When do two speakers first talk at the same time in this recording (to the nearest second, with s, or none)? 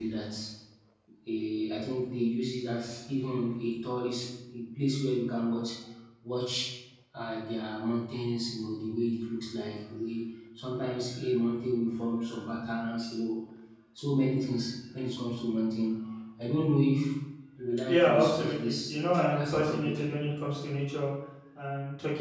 18 s